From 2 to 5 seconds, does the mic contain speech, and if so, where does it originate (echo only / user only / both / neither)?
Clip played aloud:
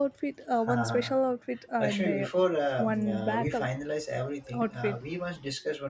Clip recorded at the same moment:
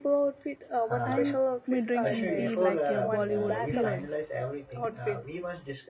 both